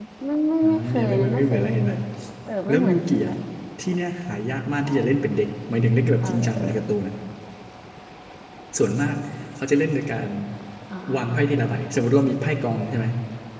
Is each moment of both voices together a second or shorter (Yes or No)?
No